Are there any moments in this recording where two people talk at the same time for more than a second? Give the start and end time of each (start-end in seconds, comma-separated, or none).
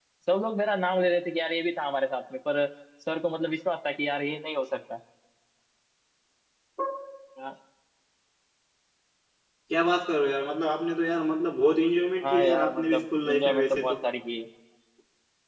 12.2-13.9